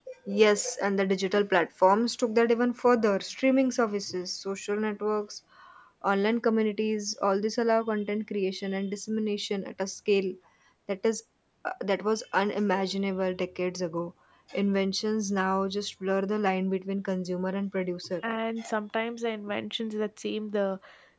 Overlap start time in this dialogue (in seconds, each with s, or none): none